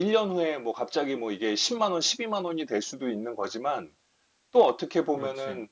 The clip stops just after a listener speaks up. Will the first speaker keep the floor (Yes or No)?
Yes